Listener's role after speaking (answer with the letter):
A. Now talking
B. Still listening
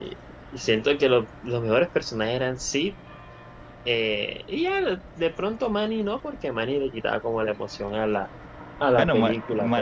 A